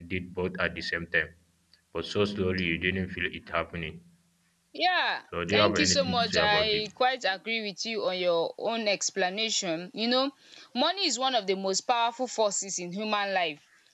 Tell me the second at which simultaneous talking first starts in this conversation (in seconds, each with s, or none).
5.5 s